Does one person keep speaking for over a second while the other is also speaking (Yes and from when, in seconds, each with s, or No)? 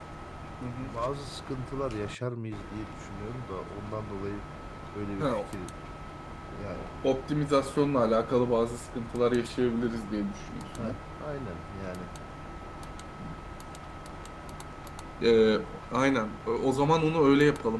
No